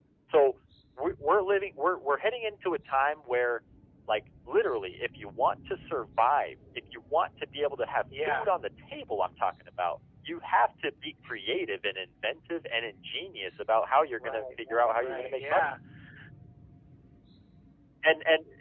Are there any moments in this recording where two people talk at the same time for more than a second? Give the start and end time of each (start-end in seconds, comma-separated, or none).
14.2-15.7